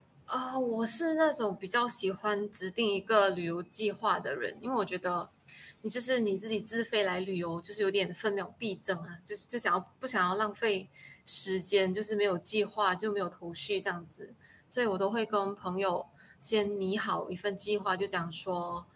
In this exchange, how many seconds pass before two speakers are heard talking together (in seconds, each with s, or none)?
none